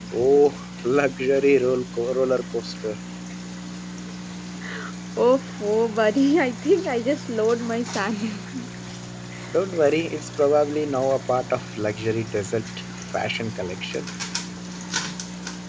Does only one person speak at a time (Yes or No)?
Yes